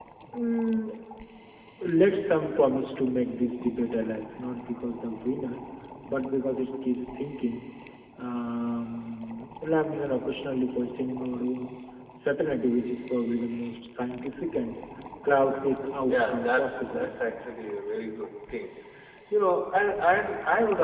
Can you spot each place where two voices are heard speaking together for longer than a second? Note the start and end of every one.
16.0-17.4

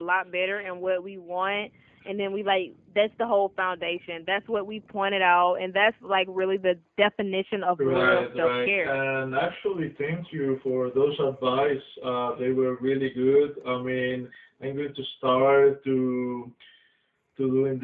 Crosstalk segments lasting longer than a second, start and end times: 7.8-9.0

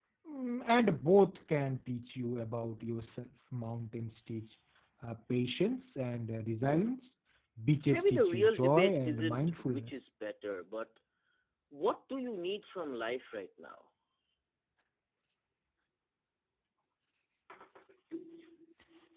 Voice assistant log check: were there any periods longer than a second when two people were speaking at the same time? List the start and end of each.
7.9-9.9

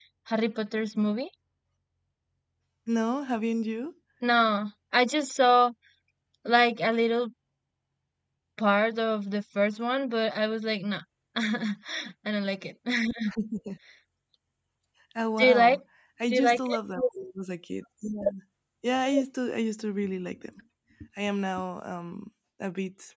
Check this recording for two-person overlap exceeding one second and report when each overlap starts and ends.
none

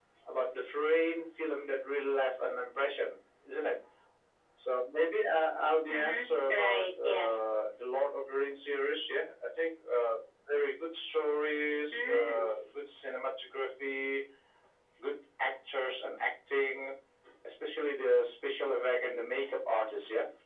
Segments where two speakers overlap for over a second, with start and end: 5.9-7.4

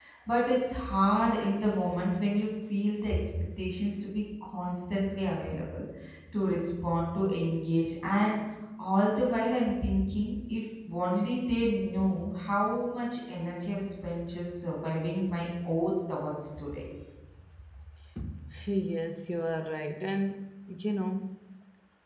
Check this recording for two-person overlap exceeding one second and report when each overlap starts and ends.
none

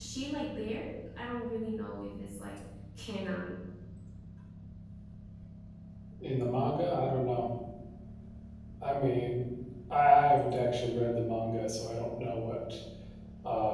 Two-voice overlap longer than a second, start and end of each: none

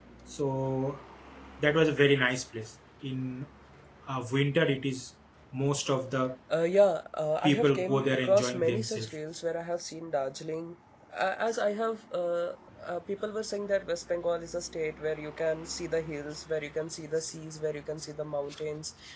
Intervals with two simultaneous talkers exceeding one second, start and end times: 7.4-9.2

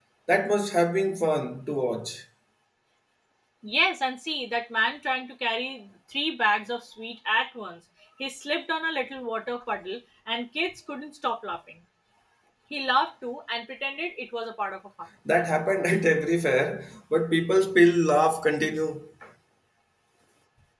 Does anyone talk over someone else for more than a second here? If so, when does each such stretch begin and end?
none

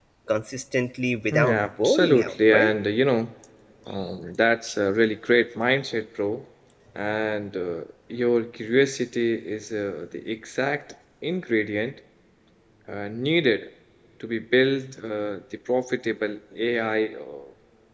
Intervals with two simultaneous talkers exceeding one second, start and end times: 1.3-2.7

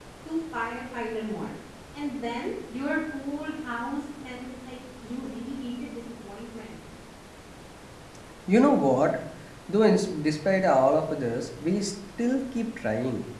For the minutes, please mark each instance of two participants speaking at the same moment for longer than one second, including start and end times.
none

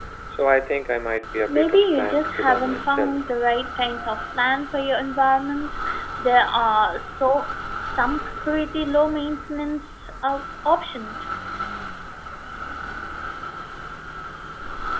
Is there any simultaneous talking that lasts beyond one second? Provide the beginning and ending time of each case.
1.5-3.2

